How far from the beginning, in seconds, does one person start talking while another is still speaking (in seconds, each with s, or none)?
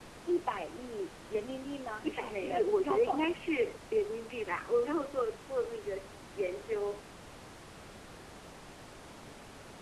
2.0 s